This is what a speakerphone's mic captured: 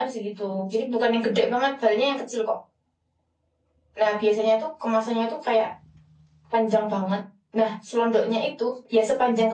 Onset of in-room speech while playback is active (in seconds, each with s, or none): none